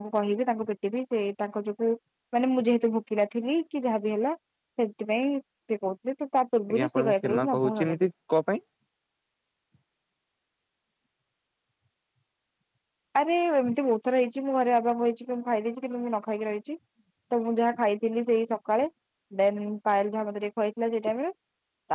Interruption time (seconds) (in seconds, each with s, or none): 6.7 s